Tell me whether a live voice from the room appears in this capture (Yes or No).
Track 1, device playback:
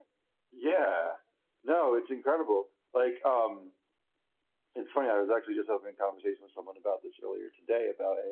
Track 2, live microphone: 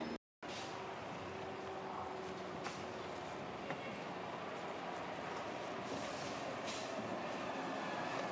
No